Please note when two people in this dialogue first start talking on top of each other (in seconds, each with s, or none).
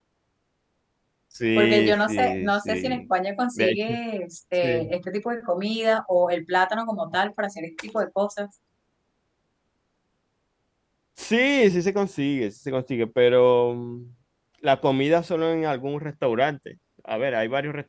1.6 s